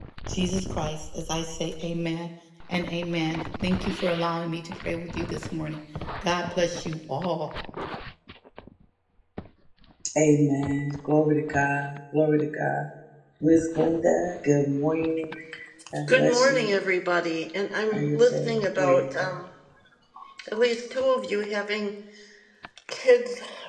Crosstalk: present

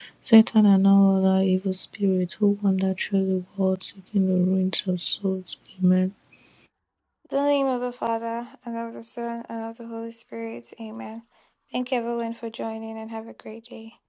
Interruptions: none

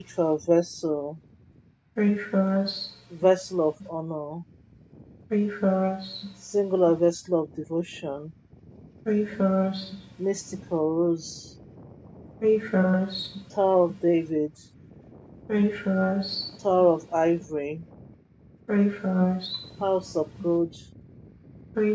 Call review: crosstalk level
none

